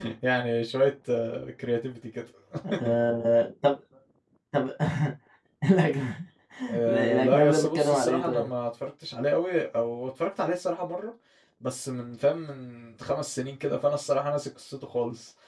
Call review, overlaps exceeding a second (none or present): present